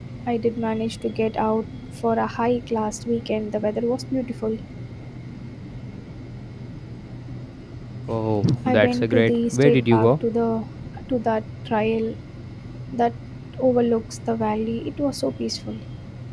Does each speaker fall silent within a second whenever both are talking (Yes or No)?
No